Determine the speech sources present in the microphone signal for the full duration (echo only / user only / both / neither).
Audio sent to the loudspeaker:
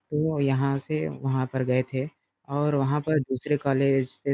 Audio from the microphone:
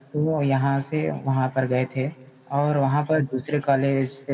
echo only